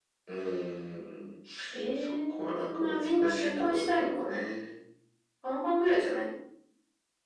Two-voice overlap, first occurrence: 2.0 s

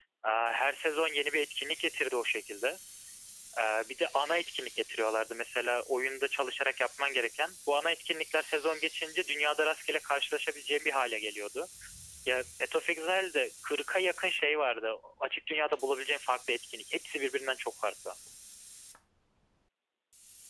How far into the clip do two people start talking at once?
none

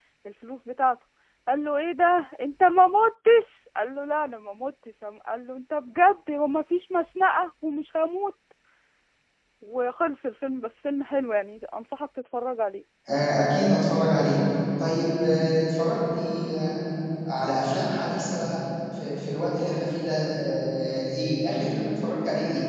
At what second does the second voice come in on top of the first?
none

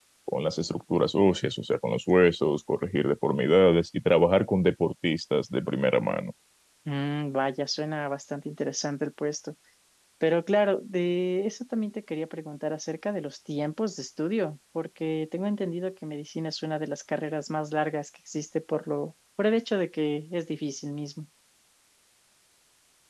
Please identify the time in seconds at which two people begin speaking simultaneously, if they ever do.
none

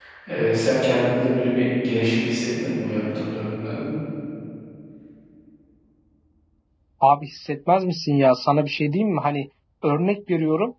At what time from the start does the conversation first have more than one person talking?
none

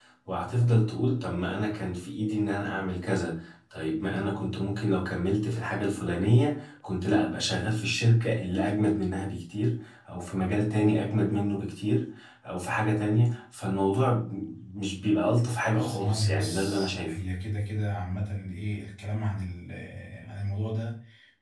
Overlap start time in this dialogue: 15.7 s

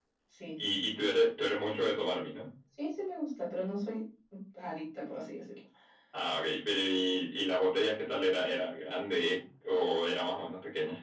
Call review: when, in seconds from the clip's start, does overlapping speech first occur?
none

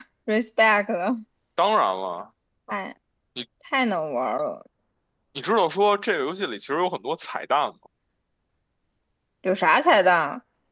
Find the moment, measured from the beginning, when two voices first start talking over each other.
none

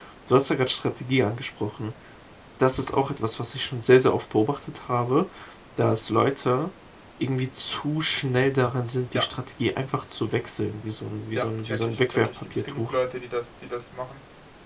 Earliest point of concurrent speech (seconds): 11.3 s

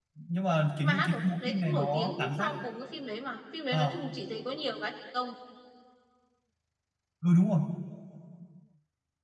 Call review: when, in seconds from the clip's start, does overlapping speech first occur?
0.8 s

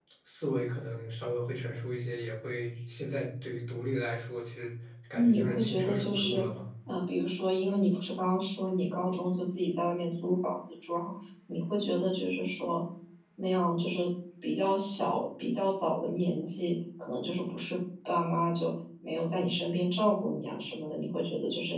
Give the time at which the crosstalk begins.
5.1 s

